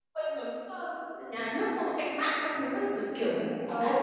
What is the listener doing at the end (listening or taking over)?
taking over